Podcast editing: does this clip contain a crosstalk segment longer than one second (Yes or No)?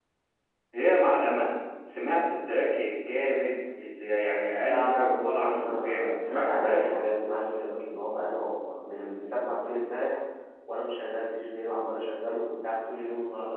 Yes